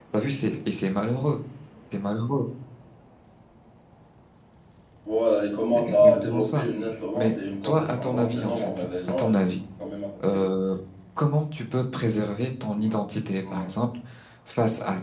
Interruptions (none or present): present